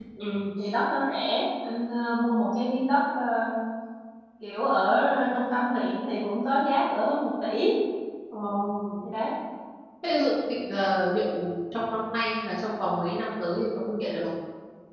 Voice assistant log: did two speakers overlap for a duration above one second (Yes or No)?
No